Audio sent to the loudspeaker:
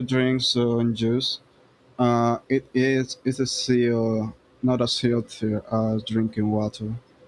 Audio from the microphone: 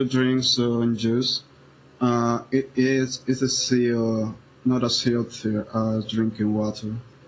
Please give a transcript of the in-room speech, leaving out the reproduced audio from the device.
none

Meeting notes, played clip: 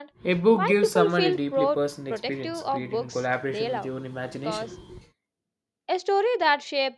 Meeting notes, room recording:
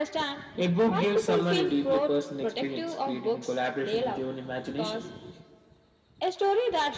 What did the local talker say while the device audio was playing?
none

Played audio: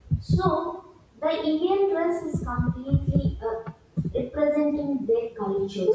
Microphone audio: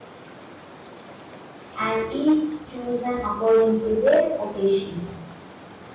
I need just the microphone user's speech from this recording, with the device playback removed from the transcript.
and is chosen according to their occasions.

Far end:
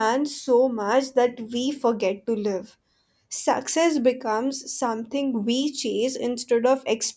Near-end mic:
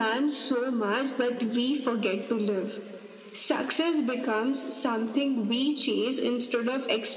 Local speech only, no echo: none

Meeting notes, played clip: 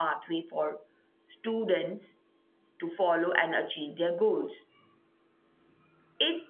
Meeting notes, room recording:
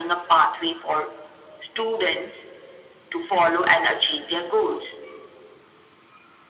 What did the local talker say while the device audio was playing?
none

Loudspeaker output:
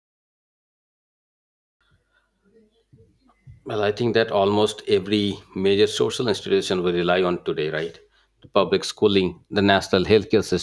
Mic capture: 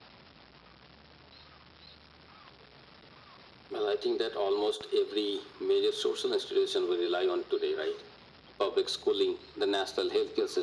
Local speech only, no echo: none

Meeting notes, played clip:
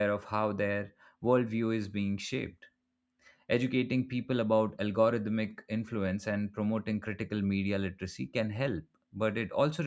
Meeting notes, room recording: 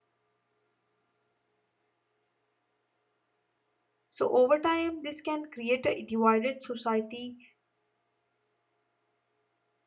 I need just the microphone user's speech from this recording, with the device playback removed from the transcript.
So, over time, this can create a divided society

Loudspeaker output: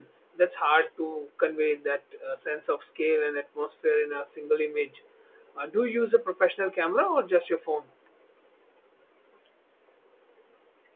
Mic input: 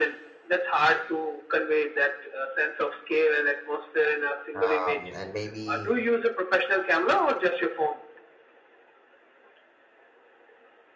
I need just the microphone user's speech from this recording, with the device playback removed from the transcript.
um, and maybe

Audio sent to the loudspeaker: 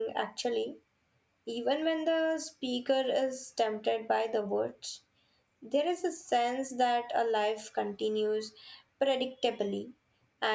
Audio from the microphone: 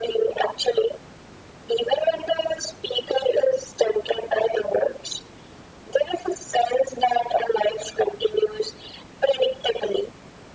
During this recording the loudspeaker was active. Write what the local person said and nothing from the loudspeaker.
none

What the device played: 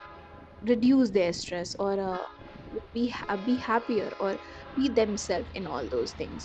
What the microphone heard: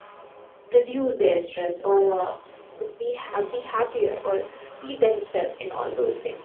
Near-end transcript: none

